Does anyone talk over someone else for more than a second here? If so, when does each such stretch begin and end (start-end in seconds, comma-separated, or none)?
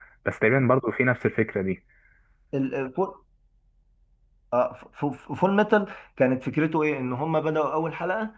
none